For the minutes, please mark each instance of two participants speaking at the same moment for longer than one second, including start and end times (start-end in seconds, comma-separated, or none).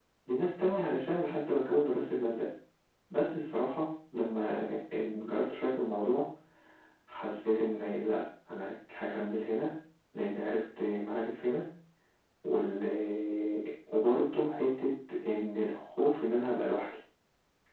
none